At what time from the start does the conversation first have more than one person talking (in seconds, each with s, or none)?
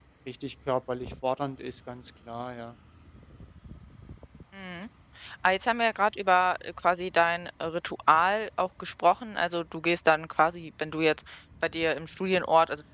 none